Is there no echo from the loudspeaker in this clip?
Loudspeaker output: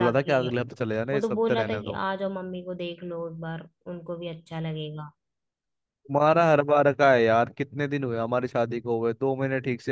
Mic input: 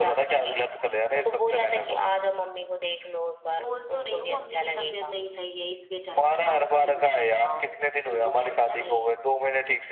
No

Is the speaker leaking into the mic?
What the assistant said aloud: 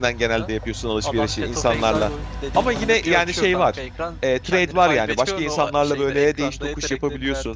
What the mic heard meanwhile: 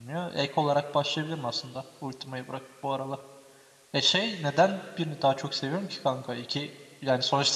No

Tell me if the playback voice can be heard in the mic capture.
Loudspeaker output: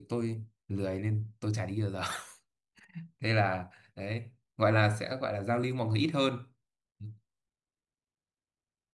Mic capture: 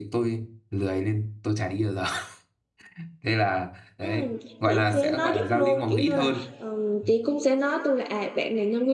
Yes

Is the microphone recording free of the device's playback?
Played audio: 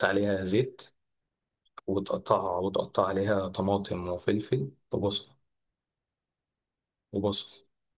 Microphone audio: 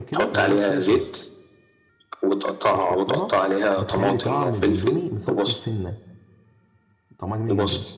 No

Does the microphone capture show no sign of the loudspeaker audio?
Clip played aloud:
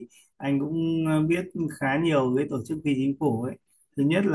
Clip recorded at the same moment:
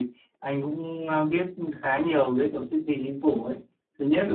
No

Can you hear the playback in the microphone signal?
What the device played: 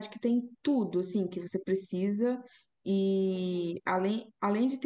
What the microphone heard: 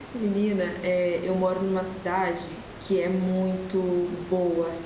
No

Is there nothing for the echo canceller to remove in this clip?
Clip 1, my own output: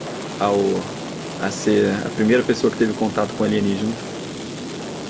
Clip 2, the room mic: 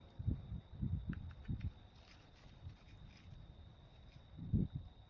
Yes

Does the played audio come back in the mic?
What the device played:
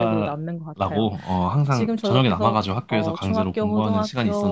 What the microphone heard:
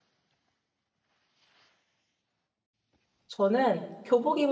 No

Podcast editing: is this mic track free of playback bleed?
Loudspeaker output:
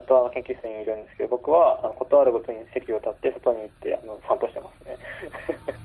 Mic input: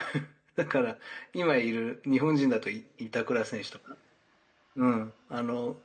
Yes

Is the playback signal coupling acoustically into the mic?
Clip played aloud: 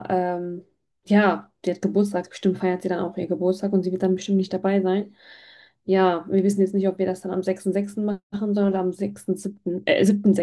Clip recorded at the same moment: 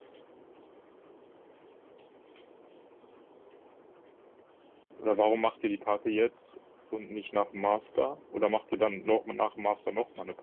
No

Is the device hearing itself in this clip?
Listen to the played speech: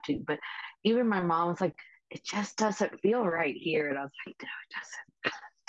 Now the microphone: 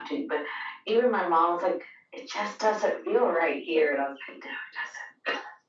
Yes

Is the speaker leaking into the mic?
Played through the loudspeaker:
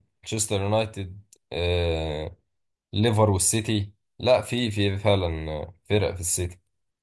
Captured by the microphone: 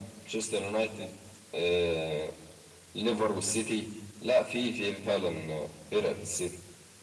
Yes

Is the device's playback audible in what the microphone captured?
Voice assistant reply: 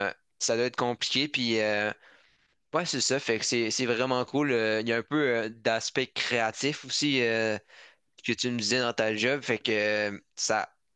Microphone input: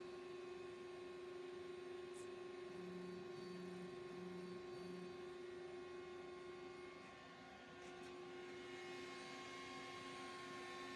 No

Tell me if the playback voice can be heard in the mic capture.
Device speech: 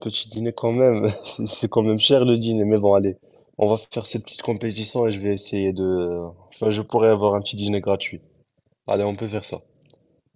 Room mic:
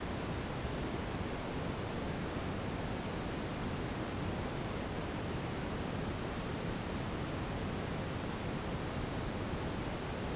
No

